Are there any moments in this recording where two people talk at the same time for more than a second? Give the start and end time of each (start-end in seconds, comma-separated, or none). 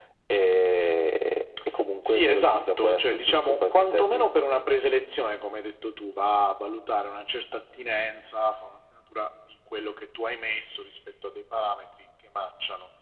2.0-4.3